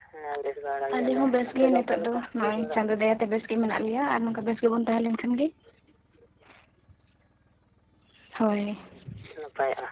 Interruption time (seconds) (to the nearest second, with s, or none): 1 s